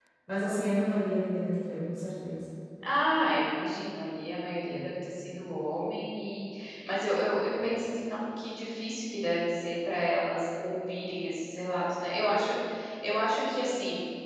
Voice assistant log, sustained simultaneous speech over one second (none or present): none